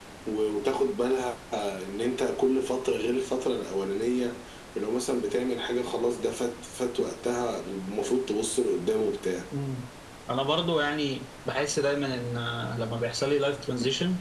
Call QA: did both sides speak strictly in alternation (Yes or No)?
Yes